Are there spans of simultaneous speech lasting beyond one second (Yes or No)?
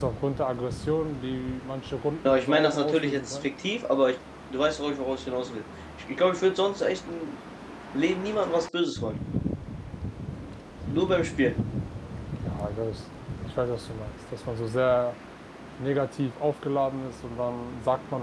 Yes